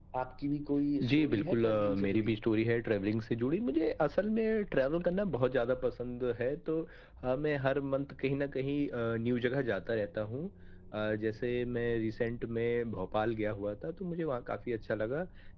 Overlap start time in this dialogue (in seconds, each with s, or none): 1.0 s